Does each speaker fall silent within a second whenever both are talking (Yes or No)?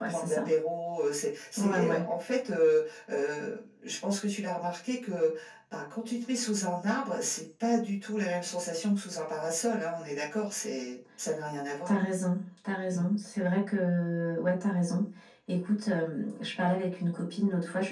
Yes